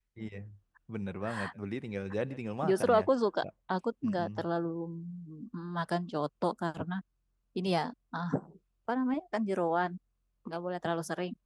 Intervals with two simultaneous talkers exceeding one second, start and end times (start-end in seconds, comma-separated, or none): none